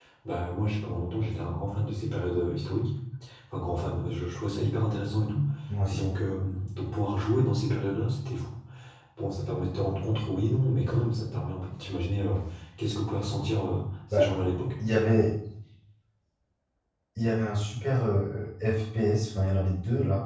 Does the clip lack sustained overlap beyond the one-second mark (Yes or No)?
Yes